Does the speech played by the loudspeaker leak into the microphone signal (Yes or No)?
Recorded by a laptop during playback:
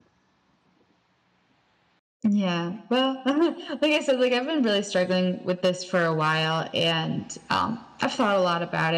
No